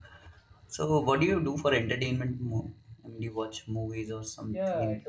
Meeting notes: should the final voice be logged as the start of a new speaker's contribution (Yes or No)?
Yes